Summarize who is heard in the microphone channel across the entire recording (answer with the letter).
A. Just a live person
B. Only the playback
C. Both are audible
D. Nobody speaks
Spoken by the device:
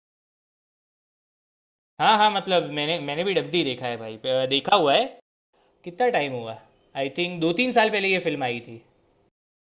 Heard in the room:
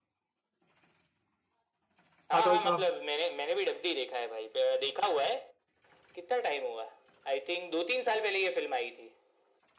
C